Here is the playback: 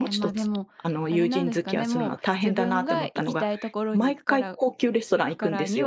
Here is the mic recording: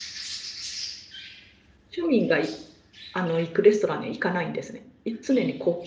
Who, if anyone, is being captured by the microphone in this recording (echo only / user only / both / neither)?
user only